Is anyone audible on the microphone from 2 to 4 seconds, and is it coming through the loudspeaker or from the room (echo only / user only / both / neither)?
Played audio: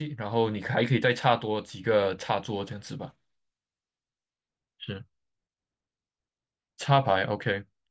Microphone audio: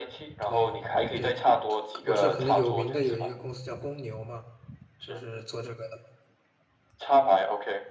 both